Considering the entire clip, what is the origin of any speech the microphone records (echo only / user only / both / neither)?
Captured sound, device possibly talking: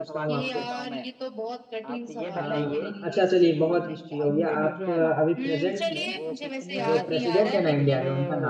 both